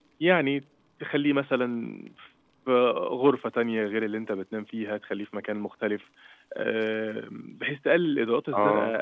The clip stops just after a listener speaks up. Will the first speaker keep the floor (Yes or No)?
Yes